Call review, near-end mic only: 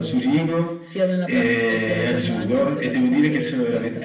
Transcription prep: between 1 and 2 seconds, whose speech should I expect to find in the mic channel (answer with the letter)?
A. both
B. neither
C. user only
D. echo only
D